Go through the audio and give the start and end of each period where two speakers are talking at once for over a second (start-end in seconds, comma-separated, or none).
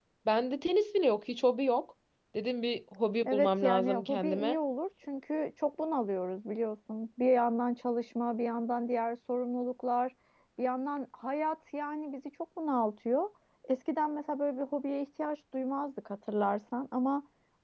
3.2-4.6